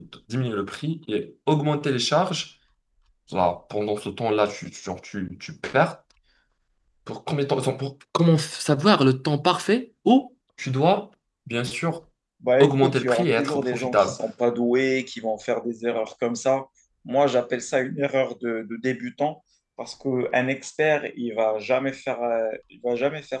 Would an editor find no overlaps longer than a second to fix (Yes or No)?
No